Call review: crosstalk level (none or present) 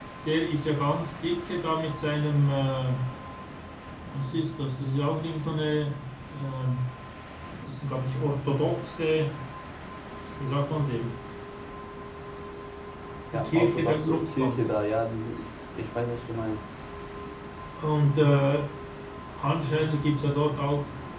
present